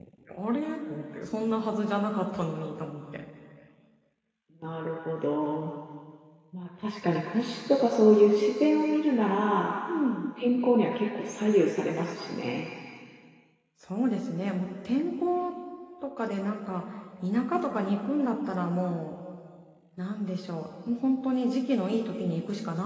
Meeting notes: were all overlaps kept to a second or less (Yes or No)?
Yes